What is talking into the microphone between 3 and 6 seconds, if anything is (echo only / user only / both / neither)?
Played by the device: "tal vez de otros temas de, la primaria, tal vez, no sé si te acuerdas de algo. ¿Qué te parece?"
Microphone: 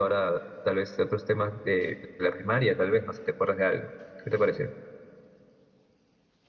echo only